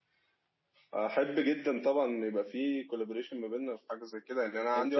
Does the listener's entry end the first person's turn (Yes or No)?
Yes